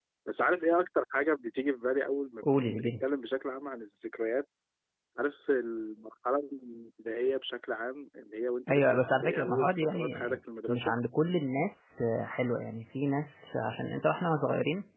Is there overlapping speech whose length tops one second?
Yes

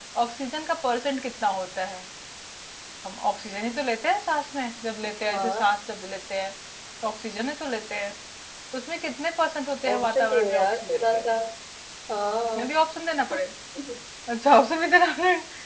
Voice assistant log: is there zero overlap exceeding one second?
No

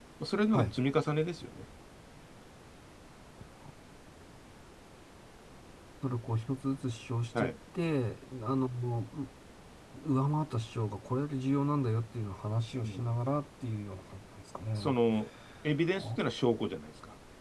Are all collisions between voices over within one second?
Yes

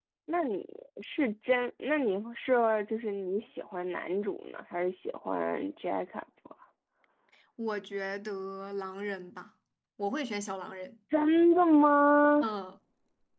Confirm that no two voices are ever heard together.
Yes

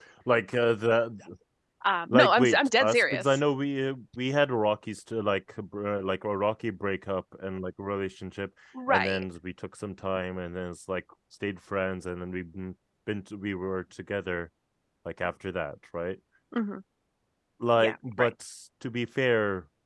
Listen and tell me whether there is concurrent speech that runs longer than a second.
Yes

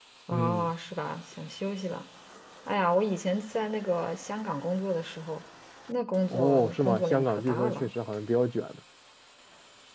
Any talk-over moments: Yes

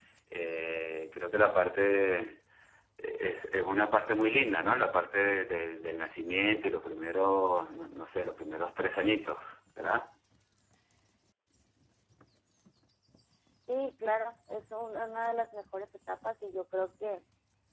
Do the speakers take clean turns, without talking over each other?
Yes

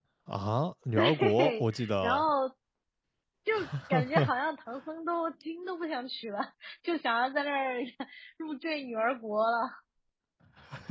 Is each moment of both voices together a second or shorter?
No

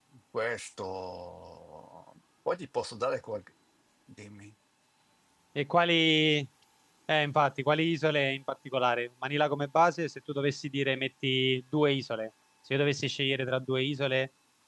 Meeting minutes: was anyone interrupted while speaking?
No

